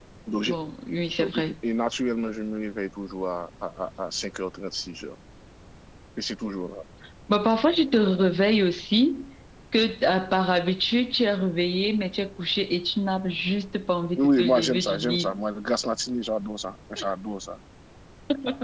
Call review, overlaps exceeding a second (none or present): present